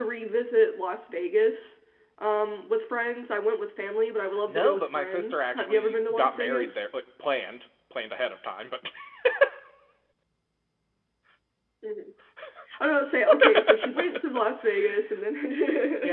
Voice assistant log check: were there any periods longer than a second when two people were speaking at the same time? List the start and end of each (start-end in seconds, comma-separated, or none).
4.5-6.8